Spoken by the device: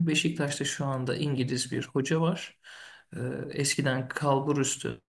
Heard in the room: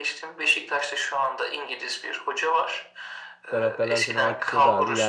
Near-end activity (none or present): present